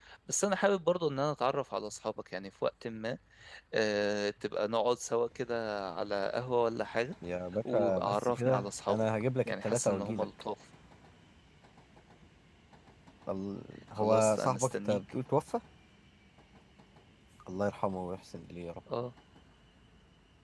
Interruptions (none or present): present